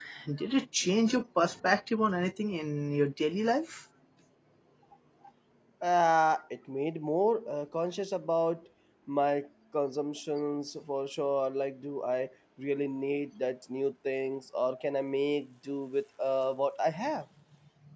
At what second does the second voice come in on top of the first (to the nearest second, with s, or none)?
none